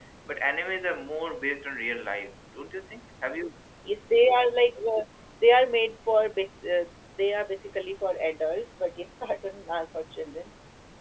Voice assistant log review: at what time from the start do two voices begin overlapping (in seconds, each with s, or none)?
none